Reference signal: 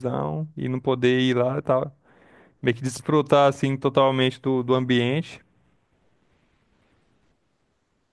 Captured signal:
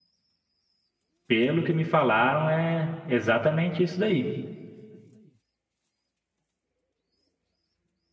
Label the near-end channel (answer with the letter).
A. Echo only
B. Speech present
B